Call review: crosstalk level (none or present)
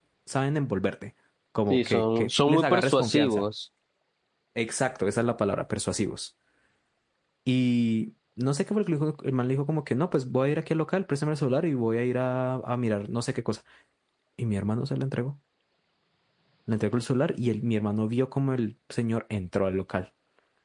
present